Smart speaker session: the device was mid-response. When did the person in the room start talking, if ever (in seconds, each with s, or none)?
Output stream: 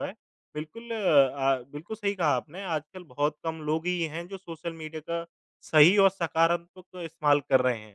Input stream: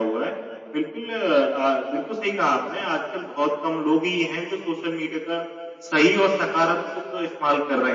none